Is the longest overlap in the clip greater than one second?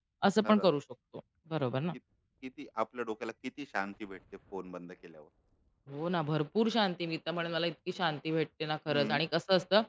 No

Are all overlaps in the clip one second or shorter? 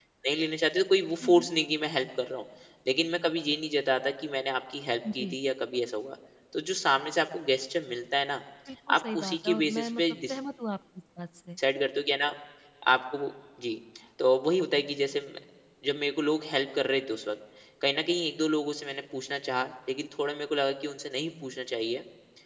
No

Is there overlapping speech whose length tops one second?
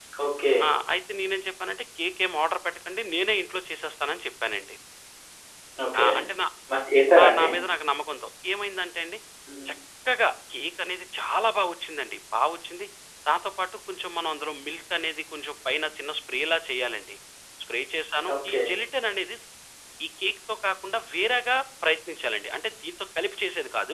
No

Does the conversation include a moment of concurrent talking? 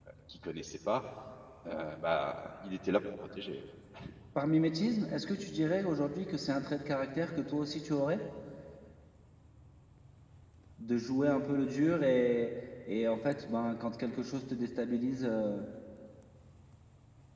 No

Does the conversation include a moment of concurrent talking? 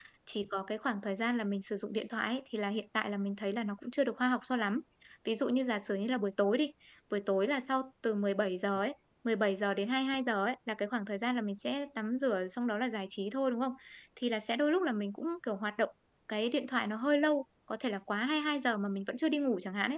No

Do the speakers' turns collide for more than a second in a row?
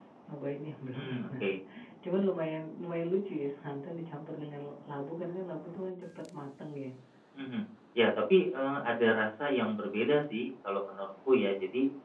No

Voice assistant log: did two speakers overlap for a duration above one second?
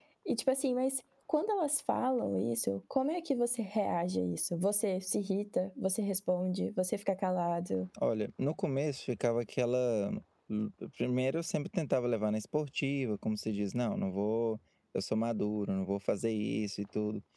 No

